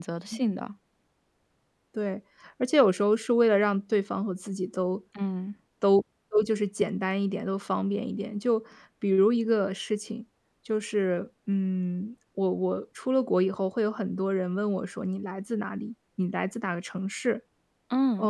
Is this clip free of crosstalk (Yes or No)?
Yes